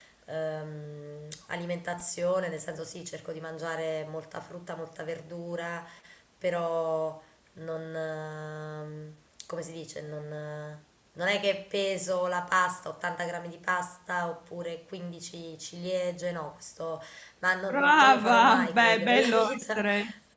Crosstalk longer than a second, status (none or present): present